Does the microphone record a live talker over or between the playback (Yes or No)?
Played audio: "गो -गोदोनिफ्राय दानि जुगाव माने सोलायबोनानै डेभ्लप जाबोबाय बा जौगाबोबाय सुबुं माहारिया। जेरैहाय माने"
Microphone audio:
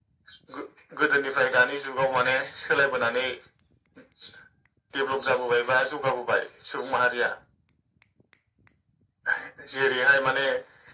No